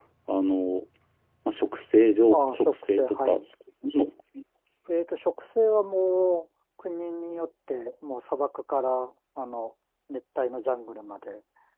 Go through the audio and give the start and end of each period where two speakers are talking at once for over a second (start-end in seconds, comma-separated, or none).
2.3-3.5